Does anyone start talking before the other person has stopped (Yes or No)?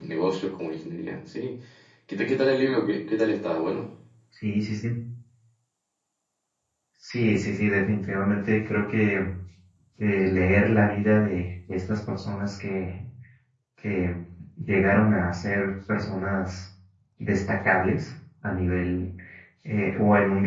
No